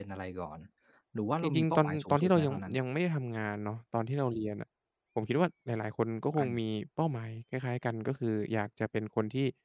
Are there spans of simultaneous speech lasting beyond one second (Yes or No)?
Yes